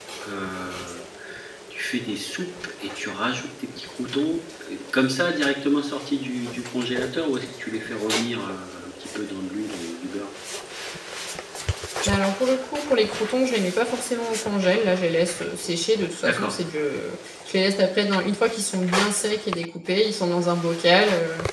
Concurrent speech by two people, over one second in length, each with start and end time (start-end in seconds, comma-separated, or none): none